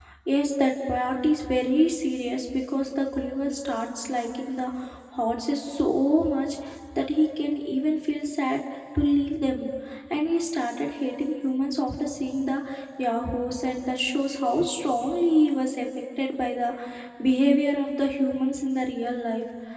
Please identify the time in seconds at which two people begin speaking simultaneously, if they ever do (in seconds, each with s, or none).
none